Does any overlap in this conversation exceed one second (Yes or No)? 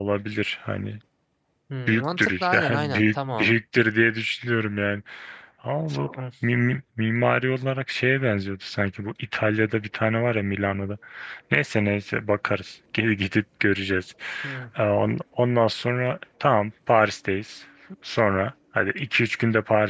Yes